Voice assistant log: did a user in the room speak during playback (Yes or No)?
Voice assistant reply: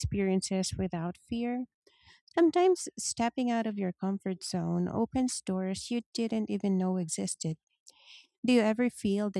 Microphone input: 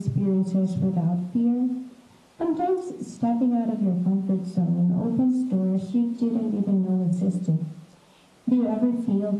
No